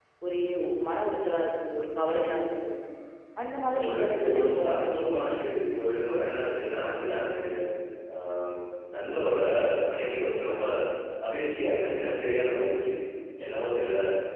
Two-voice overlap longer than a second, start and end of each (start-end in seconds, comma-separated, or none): 3.8-5.4